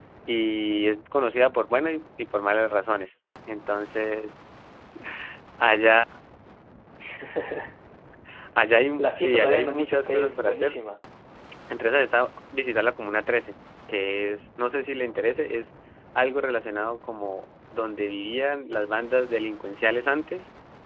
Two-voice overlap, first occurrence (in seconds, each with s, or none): 9.0 s